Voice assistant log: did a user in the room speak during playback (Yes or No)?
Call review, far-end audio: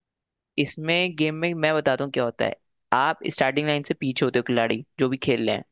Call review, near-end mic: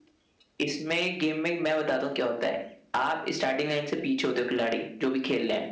No